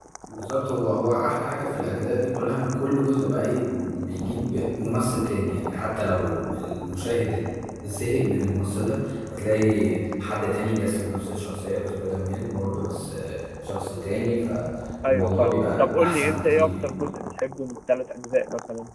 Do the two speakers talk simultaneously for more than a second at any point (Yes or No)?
Yes